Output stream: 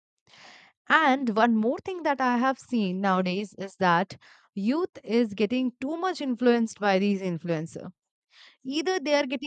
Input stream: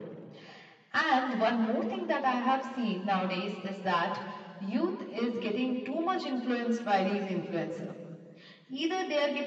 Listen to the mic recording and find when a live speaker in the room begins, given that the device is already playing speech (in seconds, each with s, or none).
none